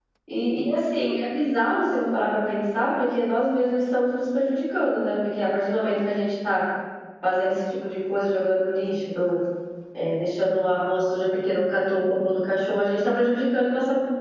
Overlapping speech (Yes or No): No